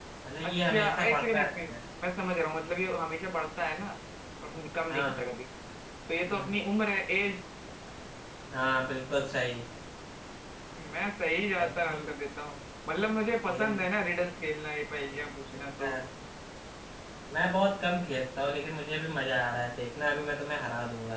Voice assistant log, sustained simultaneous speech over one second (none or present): present